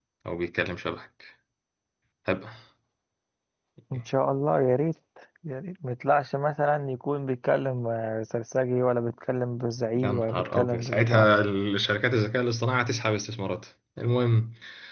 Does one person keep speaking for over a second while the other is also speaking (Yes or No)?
Yes